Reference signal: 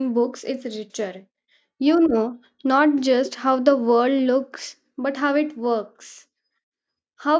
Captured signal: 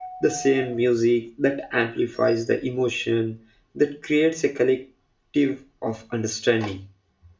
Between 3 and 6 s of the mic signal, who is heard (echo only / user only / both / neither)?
user only